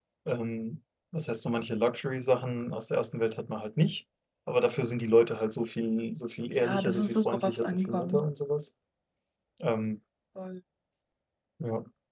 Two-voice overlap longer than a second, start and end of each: 6.5-8.2

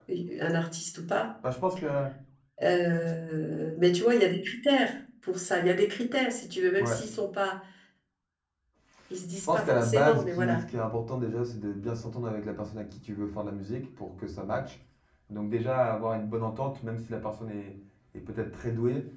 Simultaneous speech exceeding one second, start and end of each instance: 9.4-10.6

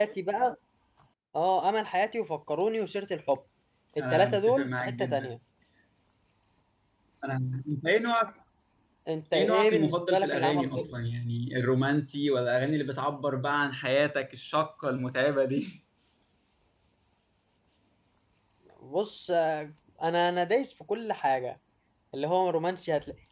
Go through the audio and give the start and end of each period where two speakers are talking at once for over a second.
4.0-5.3, 9.3-11.0

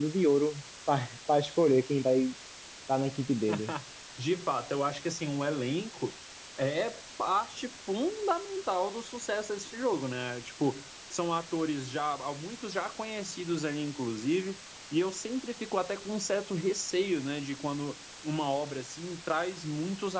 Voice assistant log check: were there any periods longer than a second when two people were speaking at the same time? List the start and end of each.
none

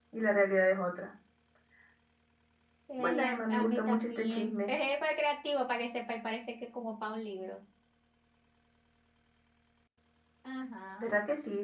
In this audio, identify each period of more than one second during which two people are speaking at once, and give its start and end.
3.0-4.7

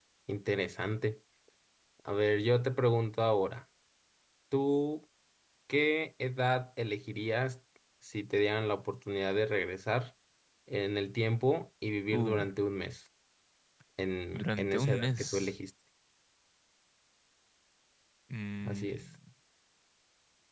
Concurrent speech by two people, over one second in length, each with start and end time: 14.3-15.6

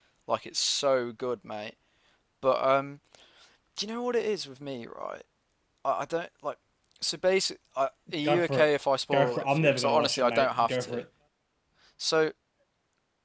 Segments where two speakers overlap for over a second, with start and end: 9.1-11.0

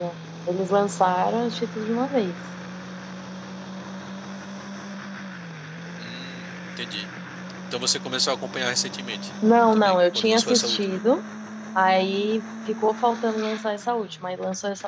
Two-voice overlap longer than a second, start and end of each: 9.7-11.0

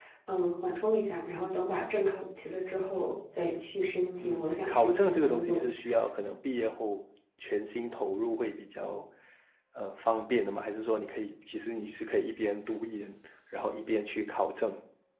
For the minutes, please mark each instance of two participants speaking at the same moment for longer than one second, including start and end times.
4.2-5.7

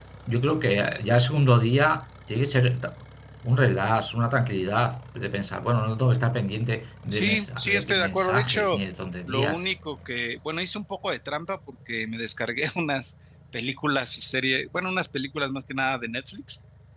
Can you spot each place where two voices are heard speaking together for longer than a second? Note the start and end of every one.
7.1-8.8

